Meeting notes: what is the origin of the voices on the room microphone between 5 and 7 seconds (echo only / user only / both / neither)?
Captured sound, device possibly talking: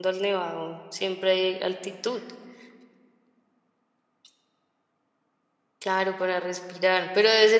user only